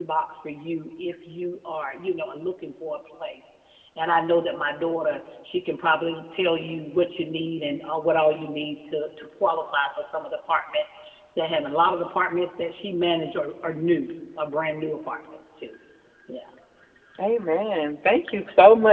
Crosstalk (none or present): none